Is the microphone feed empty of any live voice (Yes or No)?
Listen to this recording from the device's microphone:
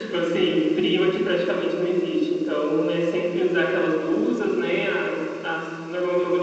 Yes